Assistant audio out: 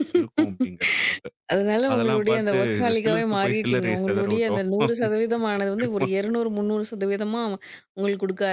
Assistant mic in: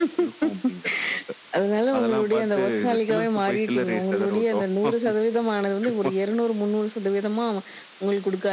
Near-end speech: none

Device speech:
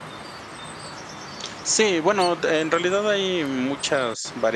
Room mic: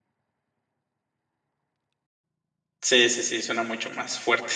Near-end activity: present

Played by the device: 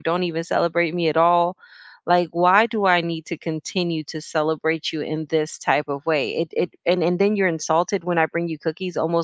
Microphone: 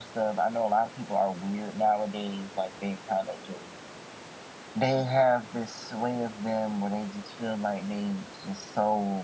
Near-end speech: present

